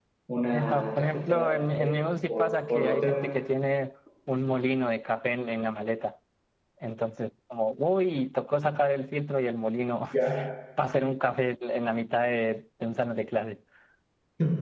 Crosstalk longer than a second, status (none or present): present